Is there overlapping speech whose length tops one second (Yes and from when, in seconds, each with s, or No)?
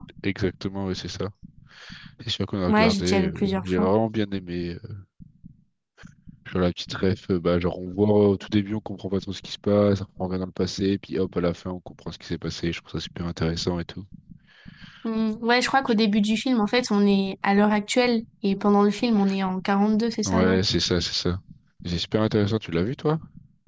Yes, from 2.7 s